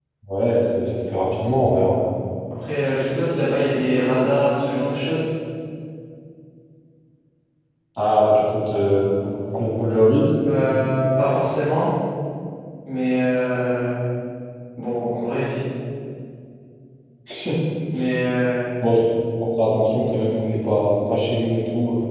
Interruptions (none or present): none